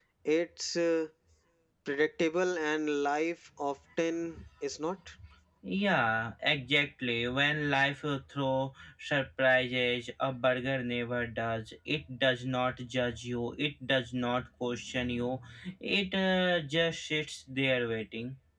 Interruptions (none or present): none